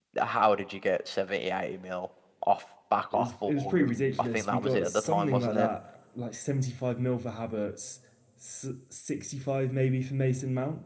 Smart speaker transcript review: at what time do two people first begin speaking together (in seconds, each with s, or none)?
3.1 s